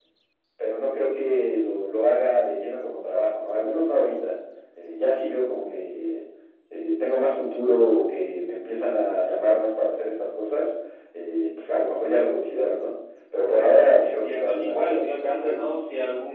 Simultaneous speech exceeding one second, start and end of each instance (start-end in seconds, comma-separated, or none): 13.5-15.7